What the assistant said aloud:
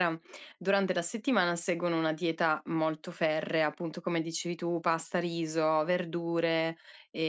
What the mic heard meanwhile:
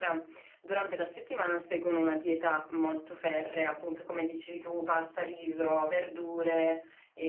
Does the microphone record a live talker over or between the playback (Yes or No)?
No